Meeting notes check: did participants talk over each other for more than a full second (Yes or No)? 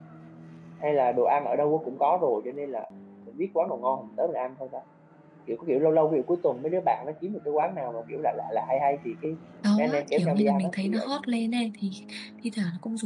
Yes